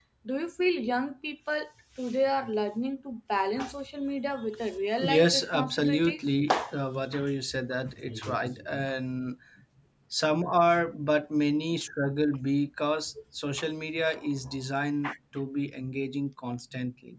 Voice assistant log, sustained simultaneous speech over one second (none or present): present